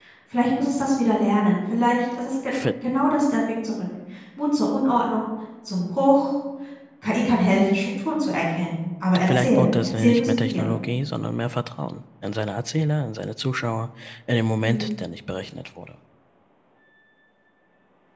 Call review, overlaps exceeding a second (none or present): present